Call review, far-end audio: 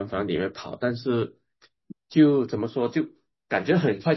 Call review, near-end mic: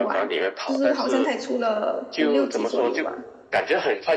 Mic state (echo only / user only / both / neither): both